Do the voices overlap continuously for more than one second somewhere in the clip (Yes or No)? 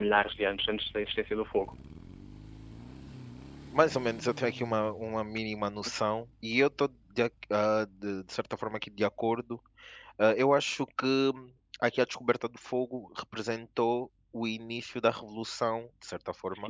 No